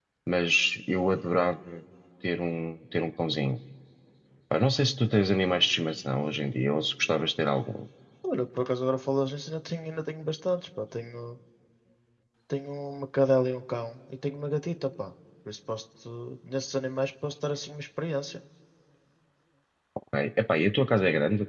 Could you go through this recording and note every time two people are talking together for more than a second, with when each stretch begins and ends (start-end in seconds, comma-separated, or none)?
none